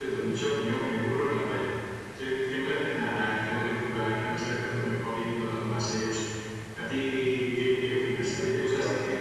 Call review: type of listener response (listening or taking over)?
listening